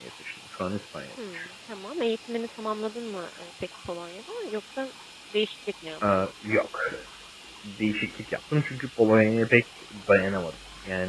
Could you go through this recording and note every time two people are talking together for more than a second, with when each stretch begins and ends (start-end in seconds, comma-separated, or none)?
none